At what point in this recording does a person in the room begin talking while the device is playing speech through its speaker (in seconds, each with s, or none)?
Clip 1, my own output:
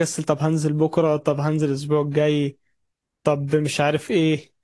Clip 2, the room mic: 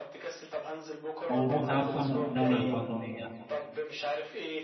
1.3 s